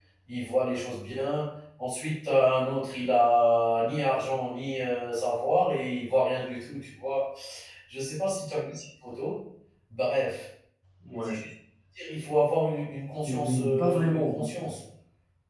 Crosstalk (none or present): present